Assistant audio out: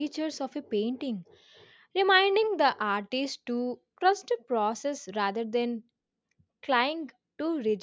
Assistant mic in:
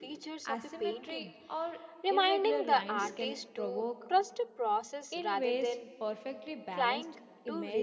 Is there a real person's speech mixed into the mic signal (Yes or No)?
Yes